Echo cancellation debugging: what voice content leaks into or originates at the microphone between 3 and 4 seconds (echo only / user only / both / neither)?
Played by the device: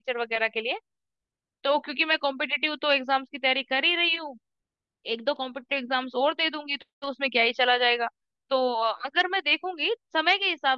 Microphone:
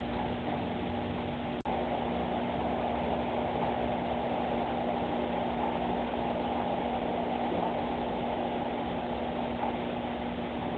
neither